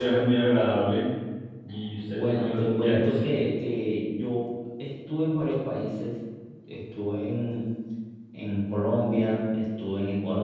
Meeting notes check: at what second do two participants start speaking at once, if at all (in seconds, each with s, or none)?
2.1 s